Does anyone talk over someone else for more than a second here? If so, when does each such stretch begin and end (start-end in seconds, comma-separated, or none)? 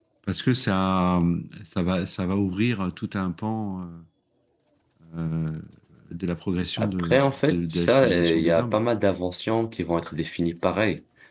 6.8-8.8